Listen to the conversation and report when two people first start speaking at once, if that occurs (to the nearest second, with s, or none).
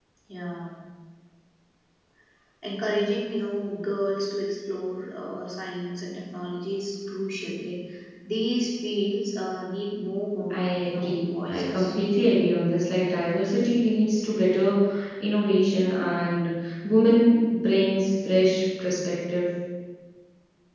11 s